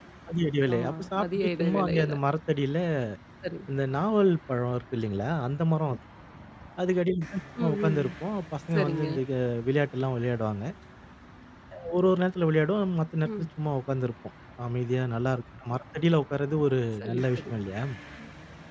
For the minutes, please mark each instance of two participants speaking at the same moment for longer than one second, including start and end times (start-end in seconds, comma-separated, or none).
0.8-2.1